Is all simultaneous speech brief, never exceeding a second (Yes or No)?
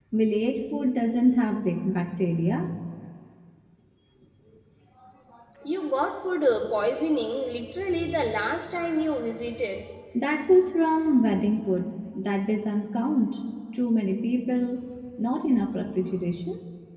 Yes